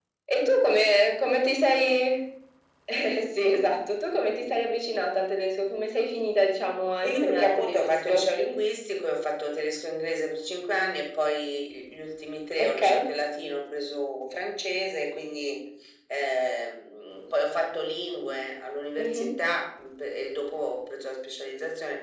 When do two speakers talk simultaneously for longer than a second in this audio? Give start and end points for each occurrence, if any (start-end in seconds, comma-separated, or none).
7.0-8.3